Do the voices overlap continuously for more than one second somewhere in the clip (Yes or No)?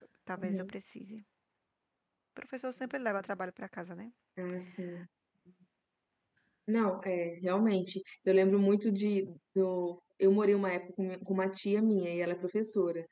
No